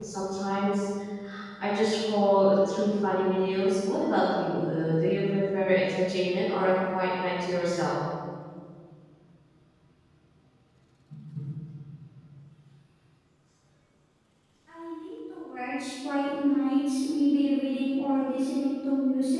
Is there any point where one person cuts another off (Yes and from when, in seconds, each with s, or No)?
No